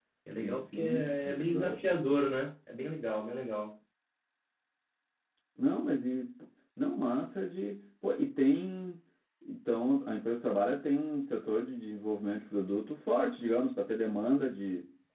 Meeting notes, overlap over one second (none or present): present